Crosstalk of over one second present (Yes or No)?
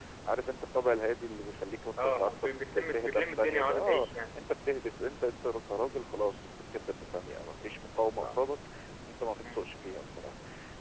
Yes